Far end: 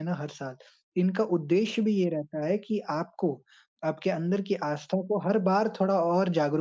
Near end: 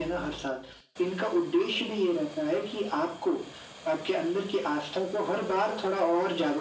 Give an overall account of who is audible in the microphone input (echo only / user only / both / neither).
echo only